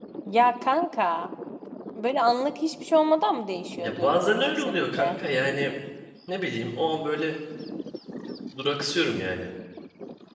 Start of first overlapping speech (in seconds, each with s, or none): 3.8 s